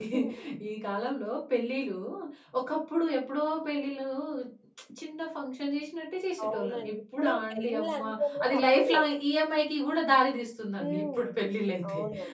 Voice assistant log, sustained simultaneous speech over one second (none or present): present